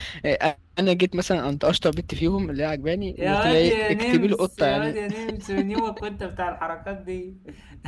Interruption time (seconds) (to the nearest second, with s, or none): 3 s